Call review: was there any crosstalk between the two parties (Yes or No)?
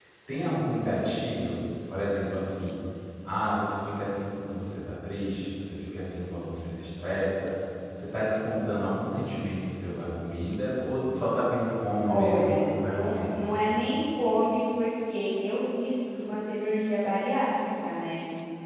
Yes